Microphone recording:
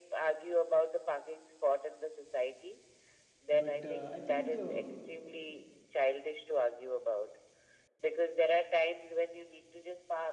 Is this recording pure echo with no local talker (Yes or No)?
No